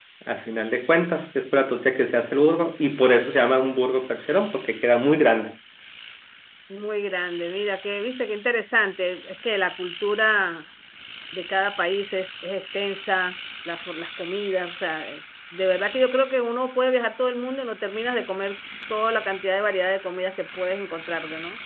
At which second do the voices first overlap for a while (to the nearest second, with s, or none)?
none